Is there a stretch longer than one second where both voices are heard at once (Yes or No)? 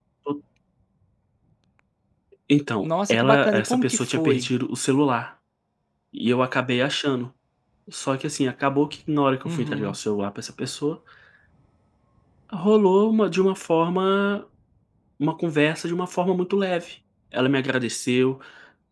Yes